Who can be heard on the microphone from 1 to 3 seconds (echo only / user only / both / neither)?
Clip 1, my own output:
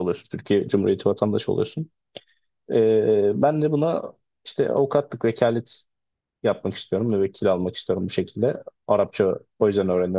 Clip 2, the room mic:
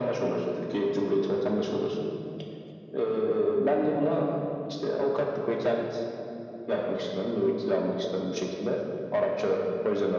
echo only